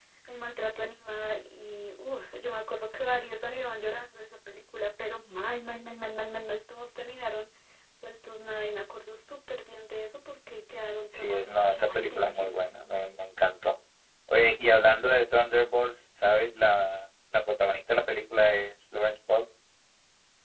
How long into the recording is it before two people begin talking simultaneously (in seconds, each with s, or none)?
11.1 s